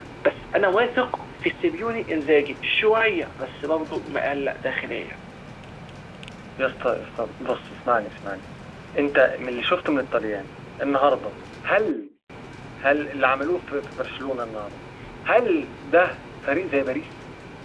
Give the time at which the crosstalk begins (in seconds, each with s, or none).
none